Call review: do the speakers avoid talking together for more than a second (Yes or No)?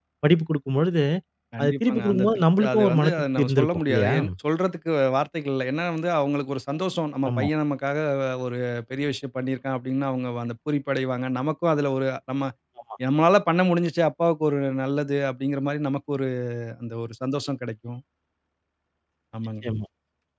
No